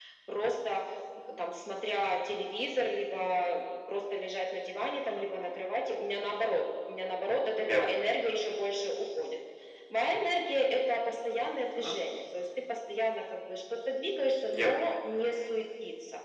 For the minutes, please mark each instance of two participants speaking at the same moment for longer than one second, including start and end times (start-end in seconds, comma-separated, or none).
none